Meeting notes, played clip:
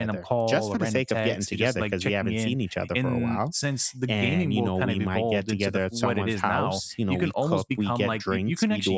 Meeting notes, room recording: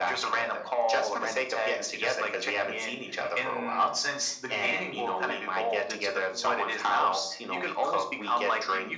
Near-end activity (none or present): none